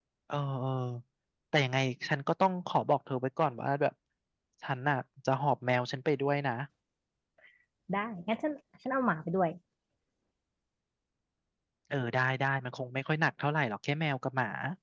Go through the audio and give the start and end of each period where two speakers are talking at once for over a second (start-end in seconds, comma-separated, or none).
none